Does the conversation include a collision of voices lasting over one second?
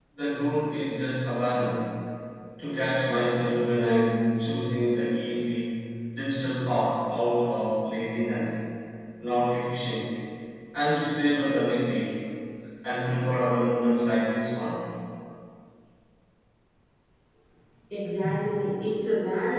No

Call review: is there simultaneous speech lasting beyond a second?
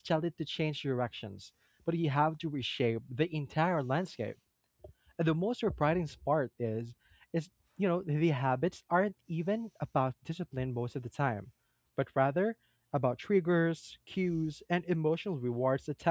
No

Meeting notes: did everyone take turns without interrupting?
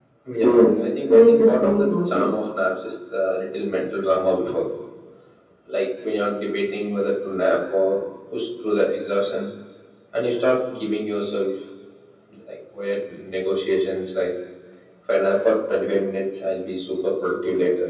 No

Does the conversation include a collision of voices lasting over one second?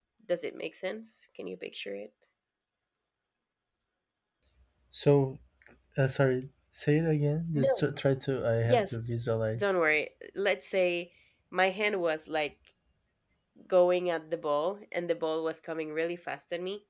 No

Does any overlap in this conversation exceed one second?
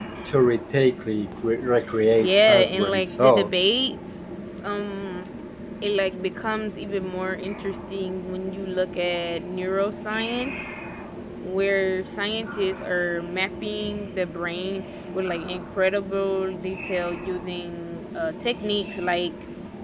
Yes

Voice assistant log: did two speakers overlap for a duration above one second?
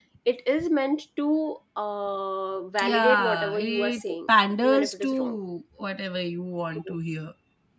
Yes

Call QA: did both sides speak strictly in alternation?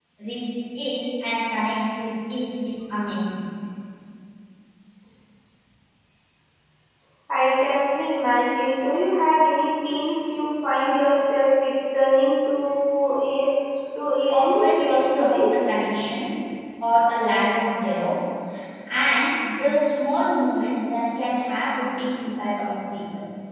No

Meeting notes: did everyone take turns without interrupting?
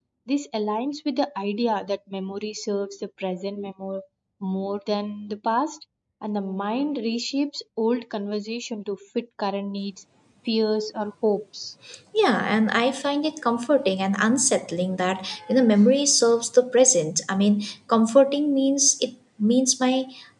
Yes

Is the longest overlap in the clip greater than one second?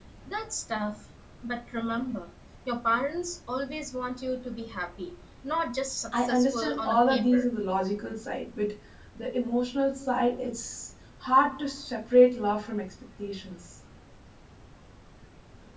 Yes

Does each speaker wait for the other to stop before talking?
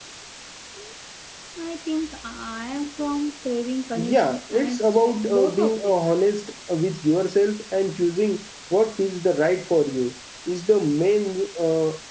No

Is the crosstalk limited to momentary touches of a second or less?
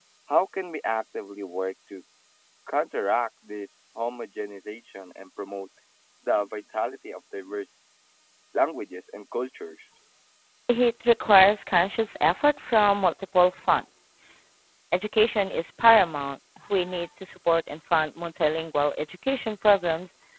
Yes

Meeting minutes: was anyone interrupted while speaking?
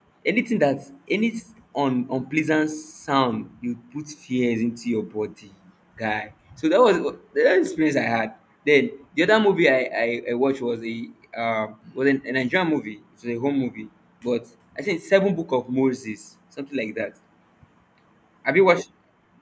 No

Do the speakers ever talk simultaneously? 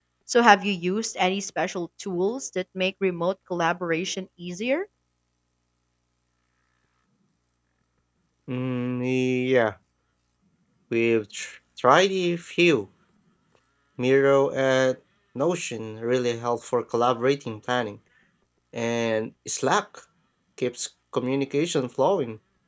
No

